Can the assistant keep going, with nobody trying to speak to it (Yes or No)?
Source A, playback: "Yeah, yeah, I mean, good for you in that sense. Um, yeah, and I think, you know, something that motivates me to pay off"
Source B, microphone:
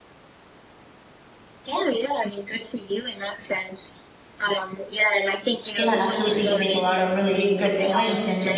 No